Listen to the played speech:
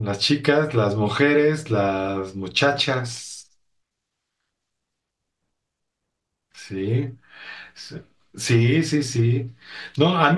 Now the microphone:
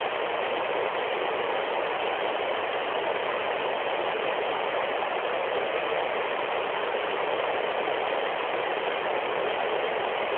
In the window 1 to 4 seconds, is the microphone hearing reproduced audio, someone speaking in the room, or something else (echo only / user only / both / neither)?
neither